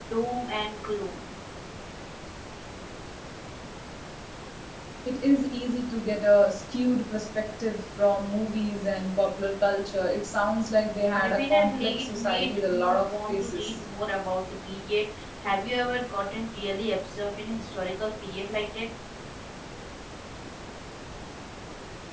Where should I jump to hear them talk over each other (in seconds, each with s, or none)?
11.1 s